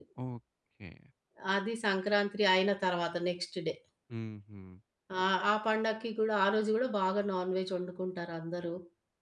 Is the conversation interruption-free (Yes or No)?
Yes